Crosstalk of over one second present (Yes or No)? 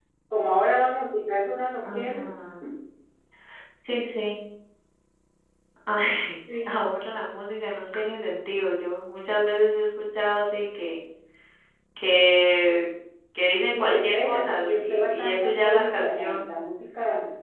Yes